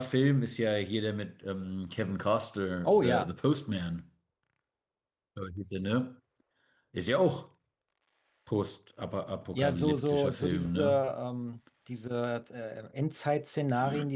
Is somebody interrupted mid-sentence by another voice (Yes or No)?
Yes